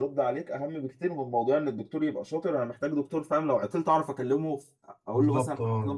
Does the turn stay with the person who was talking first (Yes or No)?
No